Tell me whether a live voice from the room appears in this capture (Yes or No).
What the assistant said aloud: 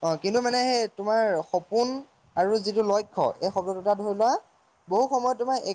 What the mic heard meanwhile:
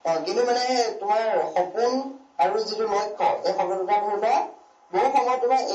No